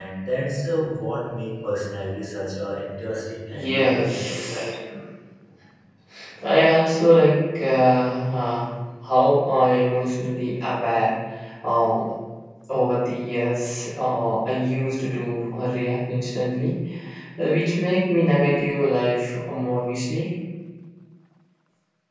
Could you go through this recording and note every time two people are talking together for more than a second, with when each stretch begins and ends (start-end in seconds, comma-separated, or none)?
3.5-4.7